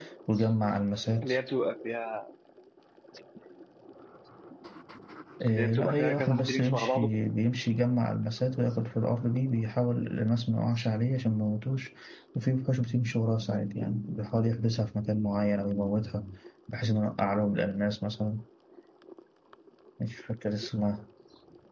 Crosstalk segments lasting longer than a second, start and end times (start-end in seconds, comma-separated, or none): 5.5-7.1